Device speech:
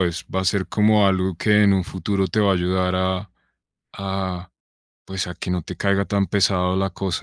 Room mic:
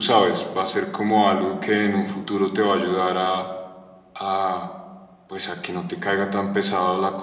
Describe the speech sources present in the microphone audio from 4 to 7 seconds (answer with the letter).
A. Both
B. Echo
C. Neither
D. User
B